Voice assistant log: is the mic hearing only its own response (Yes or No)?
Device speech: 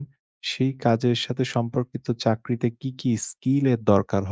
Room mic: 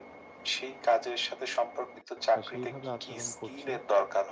No